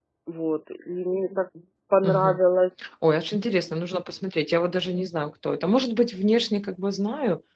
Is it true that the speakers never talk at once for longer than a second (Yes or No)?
Yes